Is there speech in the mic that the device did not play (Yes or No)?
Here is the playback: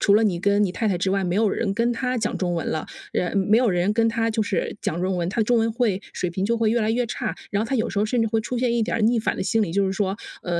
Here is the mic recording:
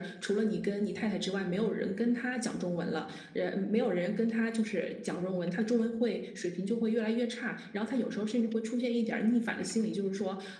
No